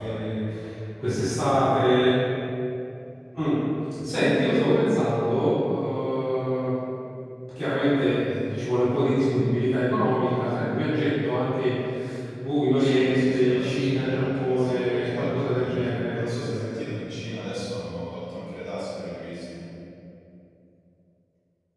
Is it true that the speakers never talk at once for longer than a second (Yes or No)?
No